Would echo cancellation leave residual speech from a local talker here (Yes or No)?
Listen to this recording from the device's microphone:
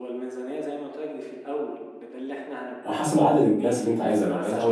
Yes